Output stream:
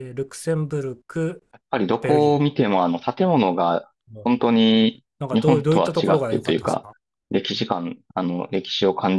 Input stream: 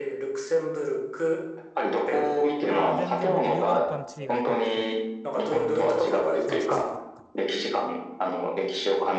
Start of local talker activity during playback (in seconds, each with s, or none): 2.7 s